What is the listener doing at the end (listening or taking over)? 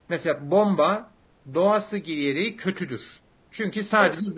listening